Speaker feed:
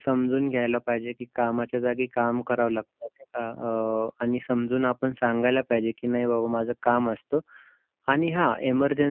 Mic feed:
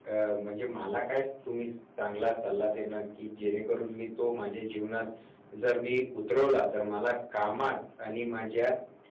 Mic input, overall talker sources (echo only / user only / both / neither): user only